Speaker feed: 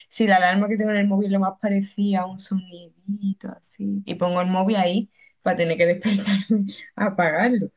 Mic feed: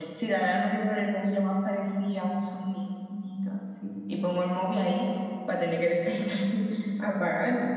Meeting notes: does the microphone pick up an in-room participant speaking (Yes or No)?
No